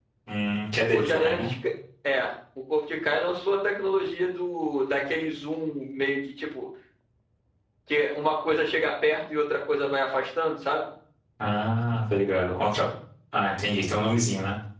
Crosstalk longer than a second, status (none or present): none